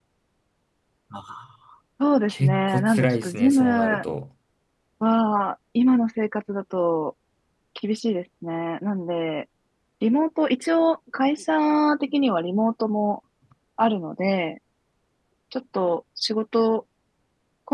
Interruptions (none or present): present